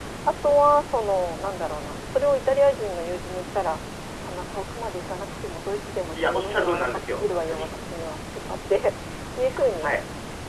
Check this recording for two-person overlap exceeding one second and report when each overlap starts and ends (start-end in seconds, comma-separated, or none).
6.2-7.7